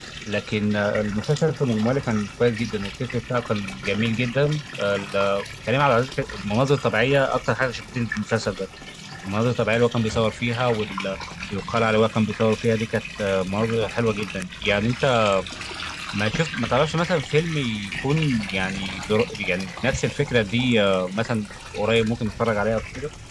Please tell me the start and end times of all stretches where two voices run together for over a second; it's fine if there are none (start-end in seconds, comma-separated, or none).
none